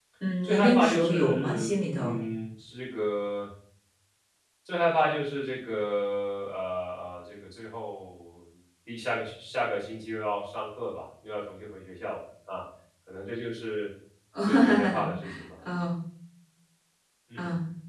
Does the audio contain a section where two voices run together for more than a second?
Yes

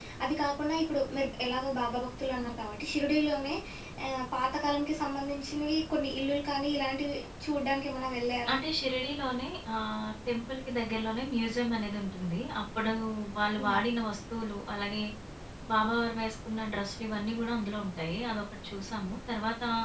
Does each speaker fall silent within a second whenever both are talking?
Yes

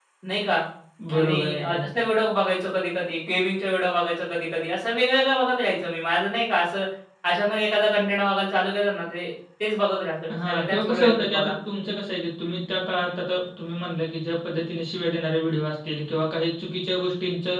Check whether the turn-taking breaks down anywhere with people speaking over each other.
Yes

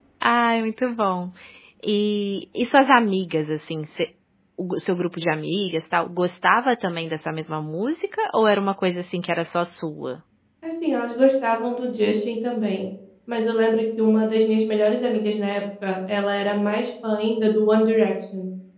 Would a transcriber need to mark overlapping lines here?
No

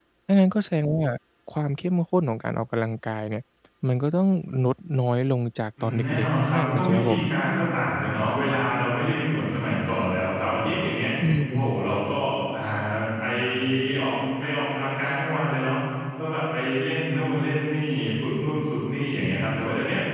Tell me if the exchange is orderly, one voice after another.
No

